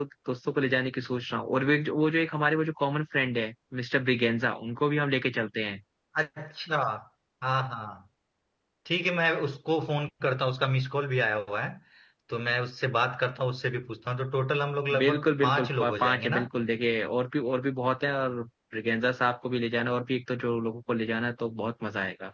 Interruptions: present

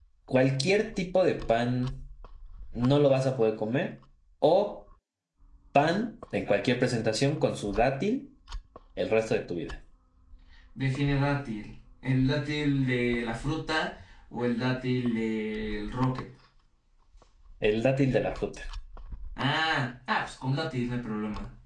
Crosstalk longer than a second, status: none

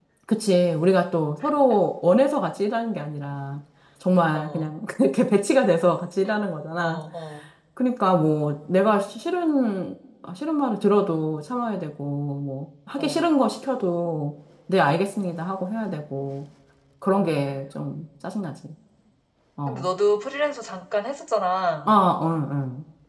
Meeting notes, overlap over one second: none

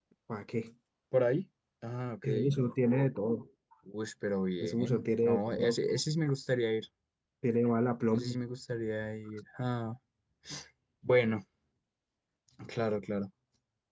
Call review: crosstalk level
present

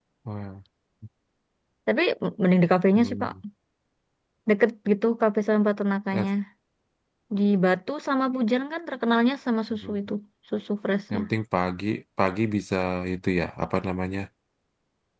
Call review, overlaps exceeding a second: none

